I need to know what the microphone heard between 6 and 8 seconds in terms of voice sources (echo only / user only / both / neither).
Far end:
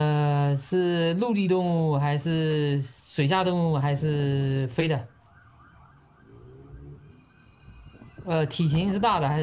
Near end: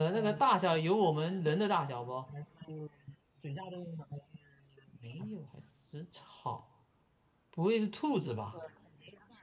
user only